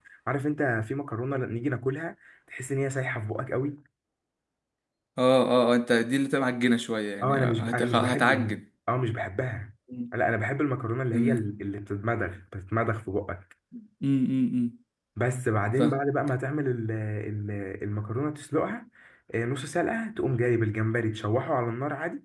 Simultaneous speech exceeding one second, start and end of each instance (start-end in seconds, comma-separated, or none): 7.2-8.6